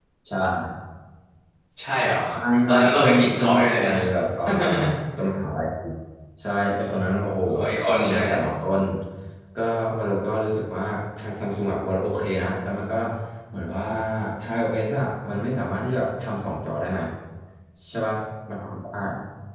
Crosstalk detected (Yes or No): Yes